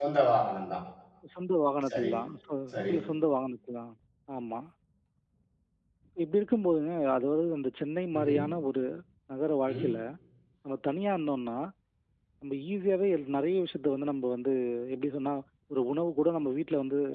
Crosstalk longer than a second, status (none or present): none